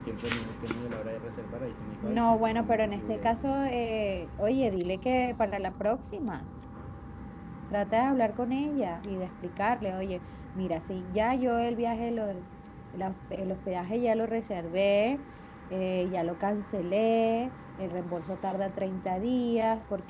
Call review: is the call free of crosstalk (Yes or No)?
No